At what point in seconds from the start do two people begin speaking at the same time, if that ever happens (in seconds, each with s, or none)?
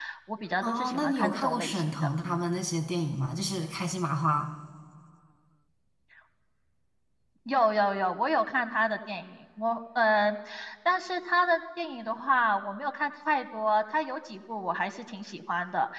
0.6 s